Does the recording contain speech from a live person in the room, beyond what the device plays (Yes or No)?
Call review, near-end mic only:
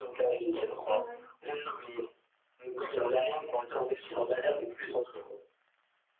Yes